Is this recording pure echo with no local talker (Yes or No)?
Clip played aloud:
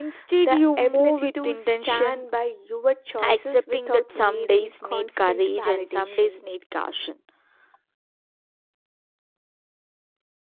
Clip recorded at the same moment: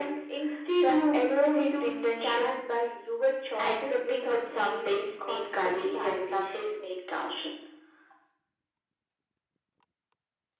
Yes